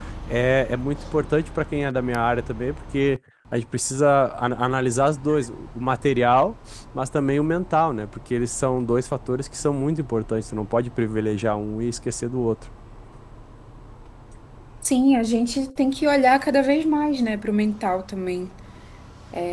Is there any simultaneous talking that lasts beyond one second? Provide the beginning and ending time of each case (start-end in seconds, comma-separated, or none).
none